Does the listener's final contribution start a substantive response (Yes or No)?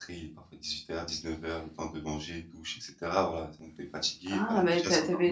Yes